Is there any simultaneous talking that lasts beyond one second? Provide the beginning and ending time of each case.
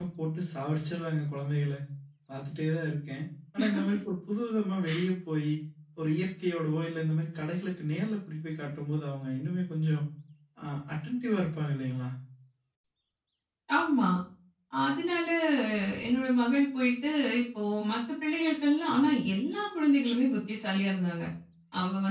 none

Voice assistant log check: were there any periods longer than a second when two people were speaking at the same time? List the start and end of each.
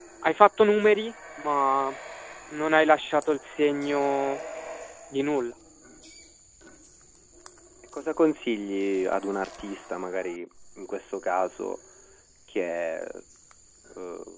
none

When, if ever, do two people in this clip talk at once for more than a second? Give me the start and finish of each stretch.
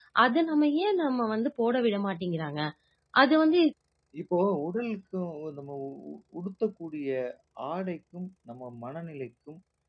none

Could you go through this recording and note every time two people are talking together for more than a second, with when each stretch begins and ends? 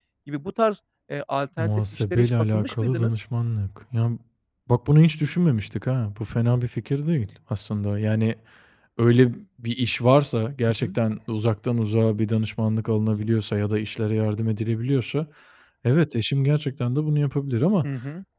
1.6-3.1

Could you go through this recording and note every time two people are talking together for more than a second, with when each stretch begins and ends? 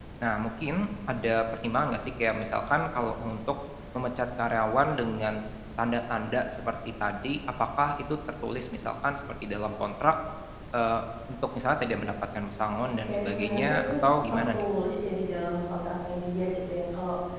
12.8-14.6

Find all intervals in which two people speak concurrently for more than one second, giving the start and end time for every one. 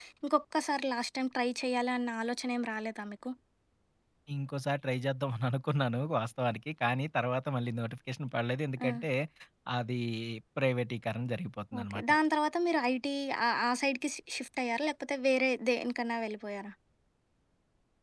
none

